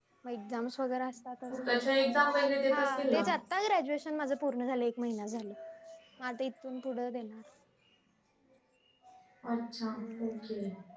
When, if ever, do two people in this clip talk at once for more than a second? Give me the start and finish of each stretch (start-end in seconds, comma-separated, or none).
none